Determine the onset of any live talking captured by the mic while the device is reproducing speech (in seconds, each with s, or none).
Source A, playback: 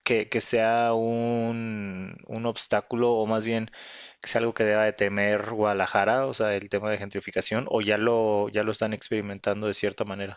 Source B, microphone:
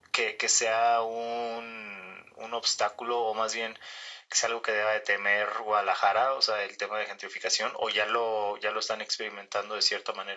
none